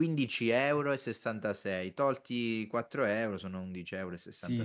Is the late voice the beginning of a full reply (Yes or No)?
Yes